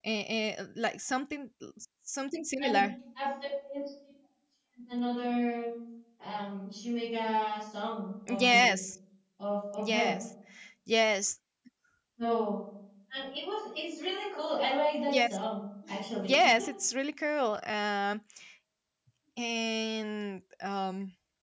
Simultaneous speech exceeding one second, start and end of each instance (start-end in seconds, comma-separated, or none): none